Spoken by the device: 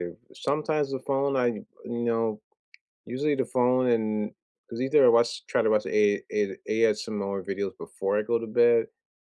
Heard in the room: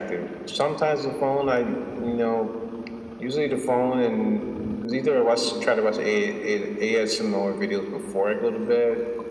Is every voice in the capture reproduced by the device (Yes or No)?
Yes